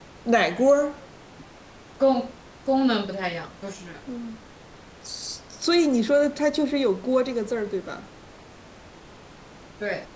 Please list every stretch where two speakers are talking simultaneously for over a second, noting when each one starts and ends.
none

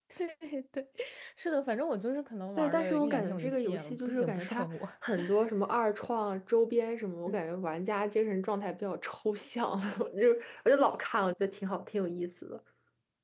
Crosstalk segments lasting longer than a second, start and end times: 2.6-4.7

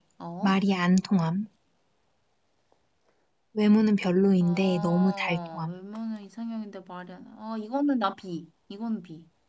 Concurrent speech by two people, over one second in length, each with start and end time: 4.4-5.8

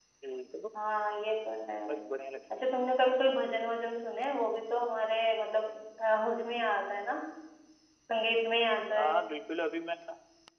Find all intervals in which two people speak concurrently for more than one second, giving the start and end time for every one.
none

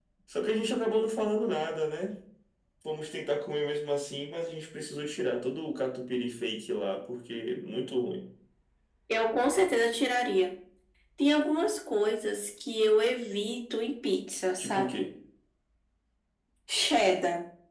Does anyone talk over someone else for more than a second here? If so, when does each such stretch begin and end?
none

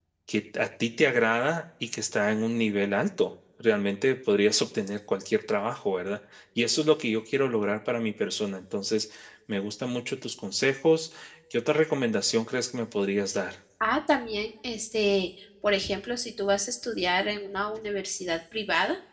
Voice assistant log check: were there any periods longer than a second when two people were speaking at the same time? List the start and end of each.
none

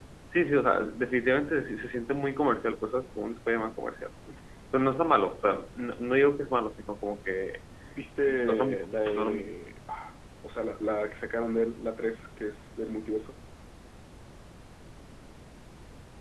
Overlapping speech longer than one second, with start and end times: 8.2-9.5

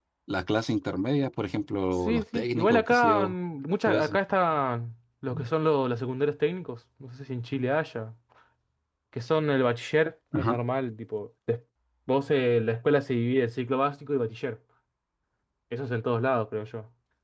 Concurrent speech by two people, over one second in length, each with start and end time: 2.0-3.3

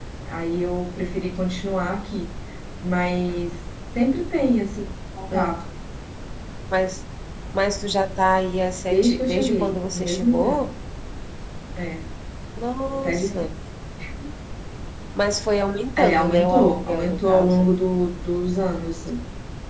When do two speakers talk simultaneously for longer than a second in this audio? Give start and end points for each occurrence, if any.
8.9-10.6, 16.0-17.7

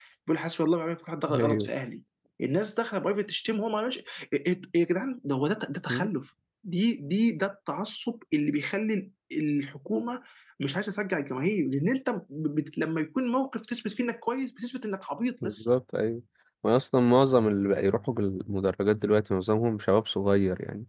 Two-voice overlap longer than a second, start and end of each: none

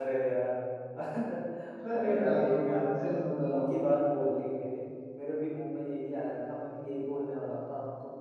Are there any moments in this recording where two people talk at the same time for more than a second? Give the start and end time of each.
1.9-3.7

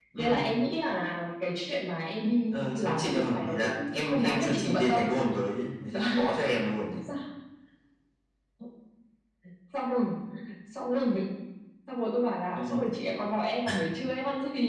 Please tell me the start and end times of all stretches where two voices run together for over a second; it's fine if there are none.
2.5-5.0

